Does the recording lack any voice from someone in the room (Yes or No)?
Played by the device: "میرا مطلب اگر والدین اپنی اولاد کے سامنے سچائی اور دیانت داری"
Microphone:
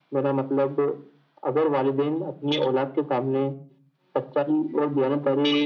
Yes